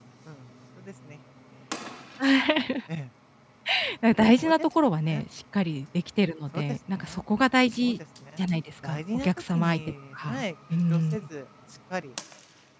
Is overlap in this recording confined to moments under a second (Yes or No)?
No